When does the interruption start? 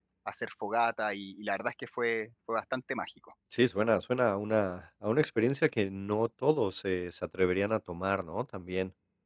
none

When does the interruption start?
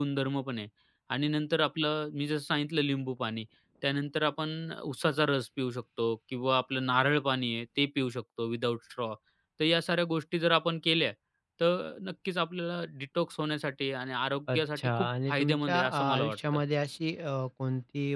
14.5 s

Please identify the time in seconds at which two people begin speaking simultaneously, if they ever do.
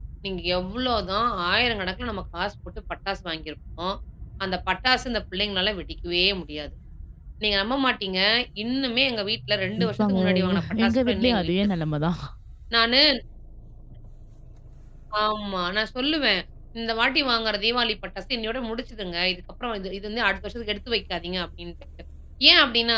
9.8 s

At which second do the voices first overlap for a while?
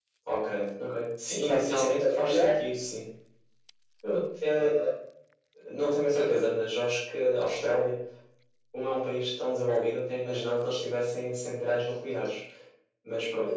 1.2 s

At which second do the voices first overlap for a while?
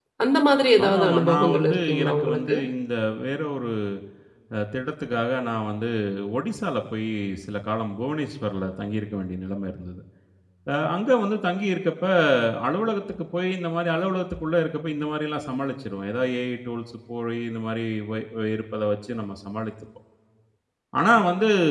0.8 s

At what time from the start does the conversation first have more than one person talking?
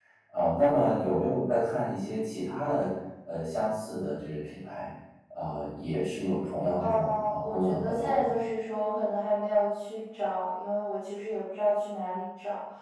6.8 s

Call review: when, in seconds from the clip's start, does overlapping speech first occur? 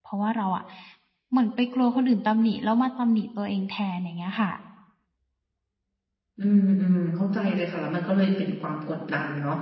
none

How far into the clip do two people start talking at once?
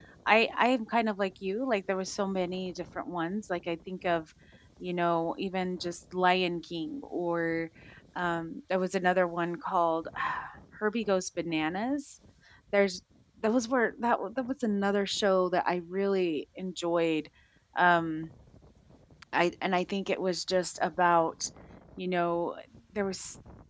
none

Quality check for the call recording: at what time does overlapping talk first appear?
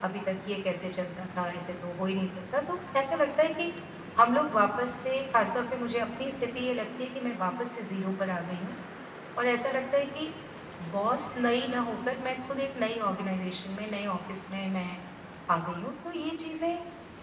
none

